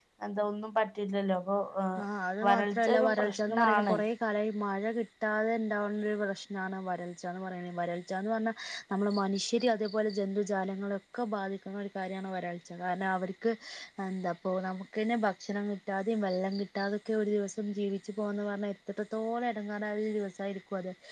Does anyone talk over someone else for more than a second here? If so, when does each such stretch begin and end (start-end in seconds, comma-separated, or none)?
2.5-4.0